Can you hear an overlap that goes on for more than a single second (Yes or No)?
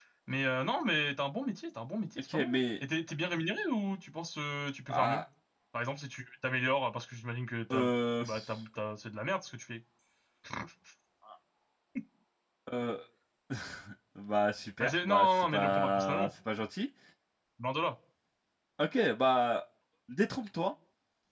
Yes